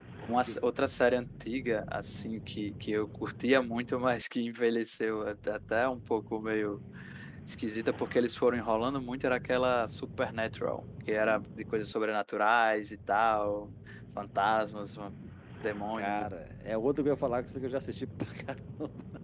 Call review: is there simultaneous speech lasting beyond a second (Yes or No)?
No